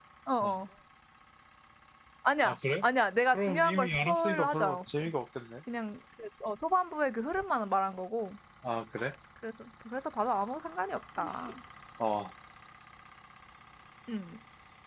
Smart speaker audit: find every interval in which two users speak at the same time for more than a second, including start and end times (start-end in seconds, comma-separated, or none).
3.3-5.0